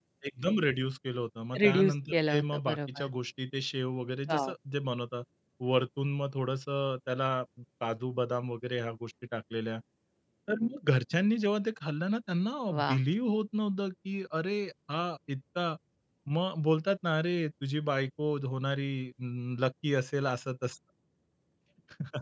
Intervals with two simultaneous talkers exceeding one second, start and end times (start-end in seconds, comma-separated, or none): 1.6-3.1